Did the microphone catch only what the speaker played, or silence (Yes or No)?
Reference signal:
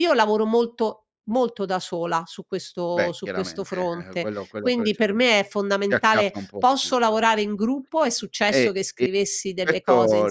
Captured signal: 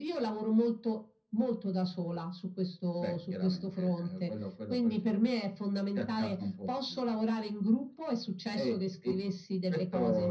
Yes